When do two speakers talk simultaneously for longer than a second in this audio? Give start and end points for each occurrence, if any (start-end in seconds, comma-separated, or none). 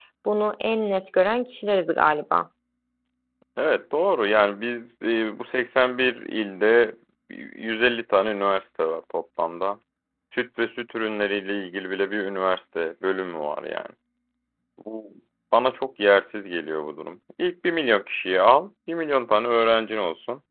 none